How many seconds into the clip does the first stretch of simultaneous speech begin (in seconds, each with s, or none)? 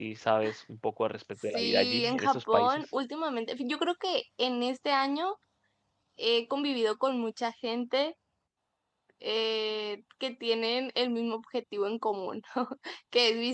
1.5 s